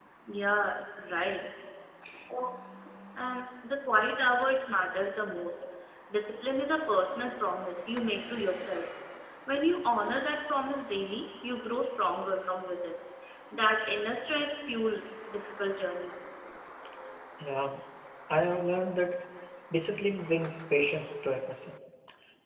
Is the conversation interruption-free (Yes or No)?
Yes